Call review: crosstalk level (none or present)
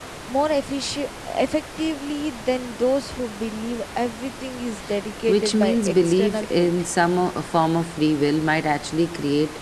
present